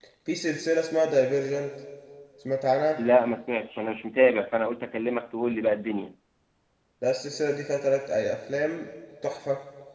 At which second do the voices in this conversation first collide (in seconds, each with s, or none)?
none